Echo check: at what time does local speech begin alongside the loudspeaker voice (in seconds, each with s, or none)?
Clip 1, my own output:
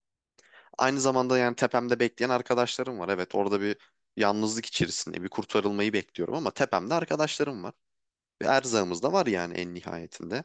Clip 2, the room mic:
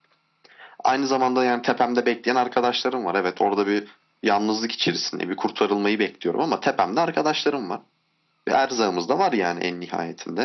none